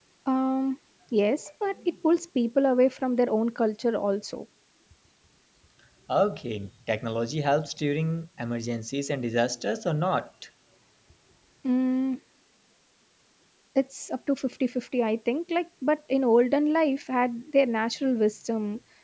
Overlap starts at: none

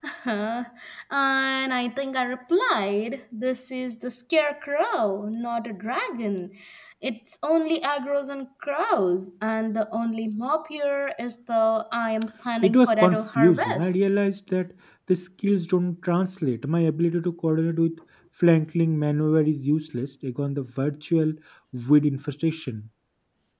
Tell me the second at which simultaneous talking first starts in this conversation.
13 s

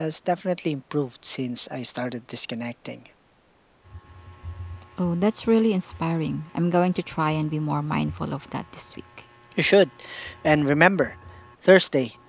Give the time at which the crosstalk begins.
none

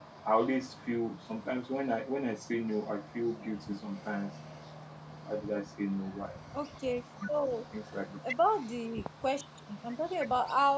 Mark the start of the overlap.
none

